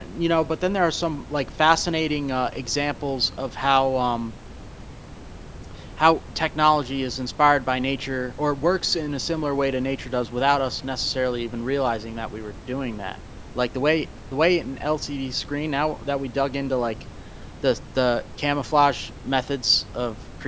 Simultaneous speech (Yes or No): No